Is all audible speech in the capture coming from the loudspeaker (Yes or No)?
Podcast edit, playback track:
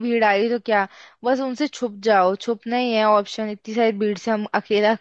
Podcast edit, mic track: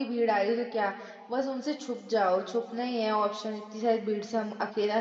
Yes